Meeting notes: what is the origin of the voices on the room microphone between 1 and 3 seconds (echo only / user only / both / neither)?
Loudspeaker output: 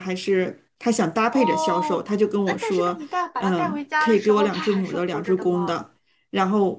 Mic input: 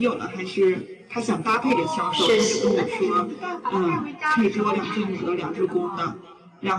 both